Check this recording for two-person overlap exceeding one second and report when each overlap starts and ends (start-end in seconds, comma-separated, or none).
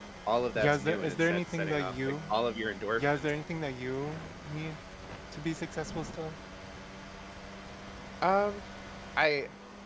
0.5-2.3